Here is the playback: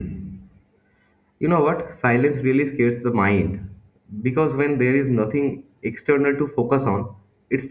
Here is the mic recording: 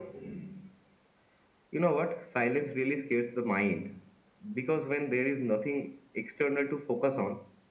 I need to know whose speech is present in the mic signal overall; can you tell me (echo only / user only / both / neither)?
echo only